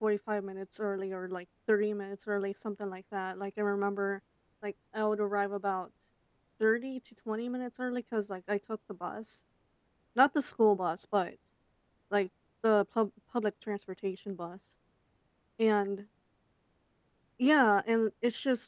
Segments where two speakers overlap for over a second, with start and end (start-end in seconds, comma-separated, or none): none